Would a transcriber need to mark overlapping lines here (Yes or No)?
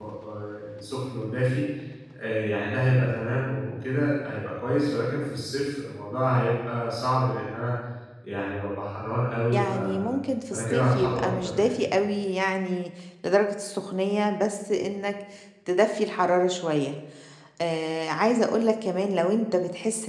Yes